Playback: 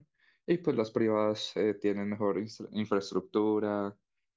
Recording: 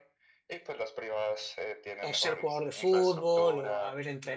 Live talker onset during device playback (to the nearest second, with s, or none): 2 s